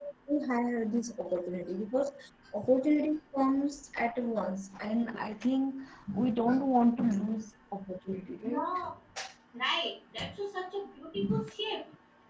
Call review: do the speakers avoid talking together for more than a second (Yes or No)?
Yes